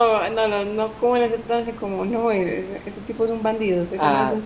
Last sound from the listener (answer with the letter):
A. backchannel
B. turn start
B